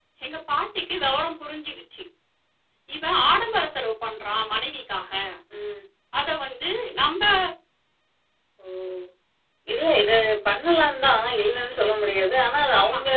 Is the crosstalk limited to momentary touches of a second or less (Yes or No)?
Yes